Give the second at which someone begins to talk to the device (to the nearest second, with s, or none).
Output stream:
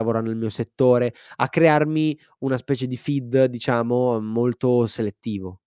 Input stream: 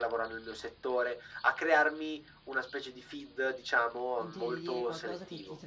4 s